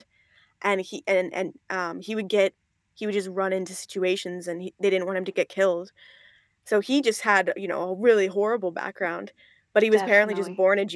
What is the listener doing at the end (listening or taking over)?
listening